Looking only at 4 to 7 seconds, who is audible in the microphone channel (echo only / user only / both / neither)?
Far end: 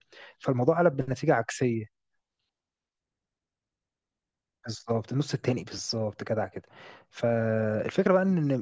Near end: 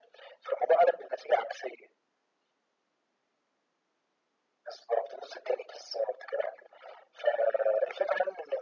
echo only